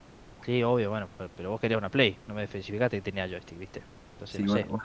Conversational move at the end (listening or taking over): taking over